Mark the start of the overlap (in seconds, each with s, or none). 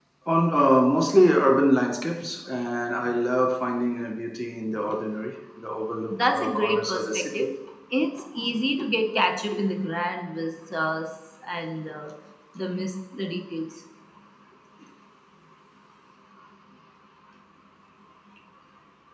6.0 s